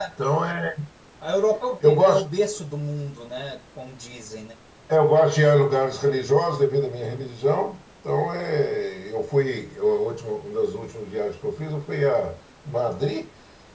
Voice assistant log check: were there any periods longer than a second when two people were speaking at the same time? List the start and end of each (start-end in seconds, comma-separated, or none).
none